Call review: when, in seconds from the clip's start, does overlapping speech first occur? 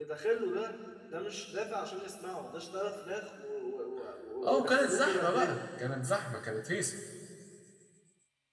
4 s

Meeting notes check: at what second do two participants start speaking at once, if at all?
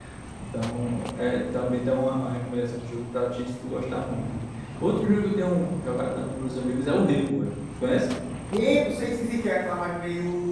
none

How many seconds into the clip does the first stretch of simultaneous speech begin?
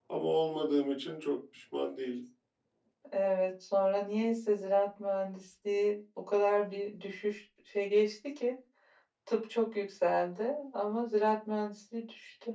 none

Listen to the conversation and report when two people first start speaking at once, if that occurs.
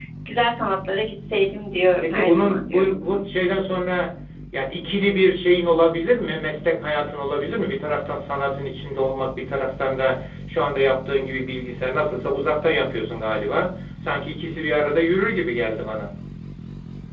2 s

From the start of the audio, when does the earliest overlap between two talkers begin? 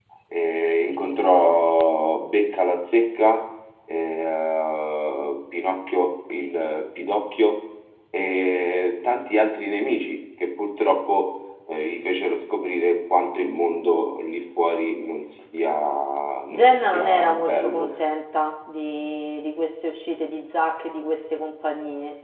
17 s

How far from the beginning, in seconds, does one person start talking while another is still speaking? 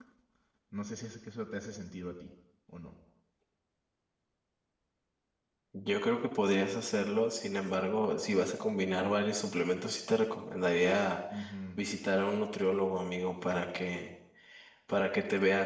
none

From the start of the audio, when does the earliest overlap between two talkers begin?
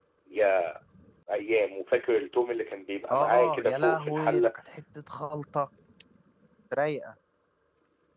3 s

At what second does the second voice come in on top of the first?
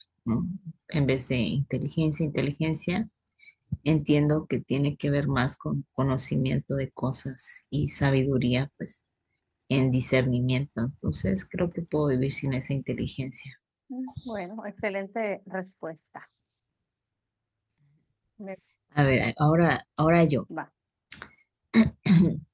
none

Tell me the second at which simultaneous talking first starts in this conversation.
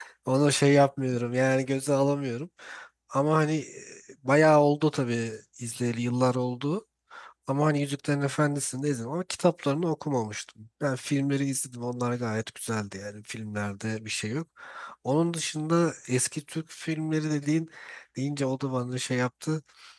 none

